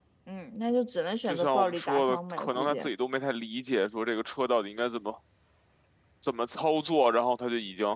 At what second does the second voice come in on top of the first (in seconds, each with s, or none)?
1.2 s